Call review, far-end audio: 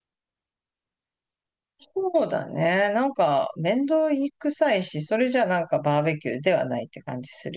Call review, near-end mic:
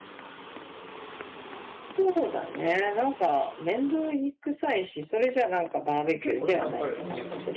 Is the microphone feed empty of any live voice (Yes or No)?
No